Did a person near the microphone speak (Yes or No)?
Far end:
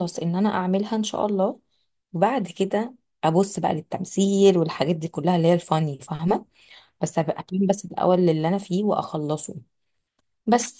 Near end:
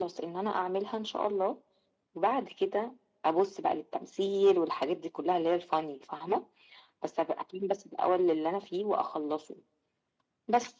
No